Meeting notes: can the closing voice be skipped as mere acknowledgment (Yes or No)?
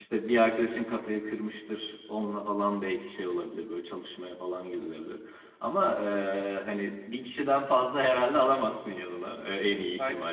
Yes